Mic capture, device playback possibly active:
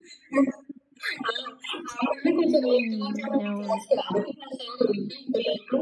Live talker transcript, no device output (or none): హ్మ్. అవును.